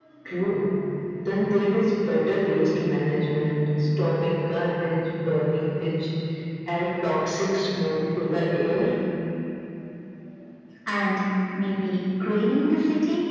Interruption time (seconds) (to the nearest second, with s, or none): none